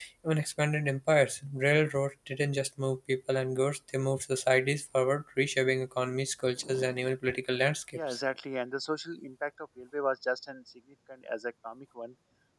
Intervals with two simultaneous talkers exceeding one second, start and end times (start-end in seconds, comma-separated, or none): none